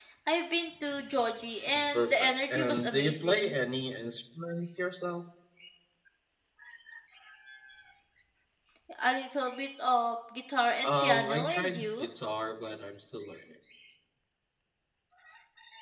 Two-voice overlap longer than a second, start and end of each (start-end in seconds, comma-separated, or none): 1.7-3.5, 10.8-12.1